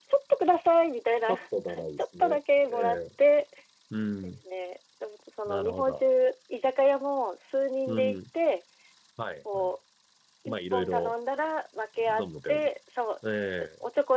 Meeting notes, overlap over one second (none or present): present